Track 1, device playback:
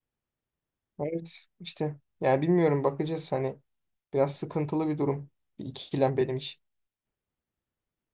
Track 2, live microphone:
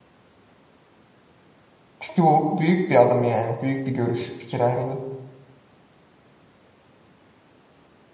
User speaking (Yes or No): Yes